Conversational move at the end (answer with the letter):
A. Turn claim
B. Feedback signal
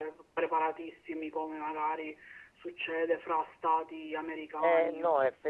A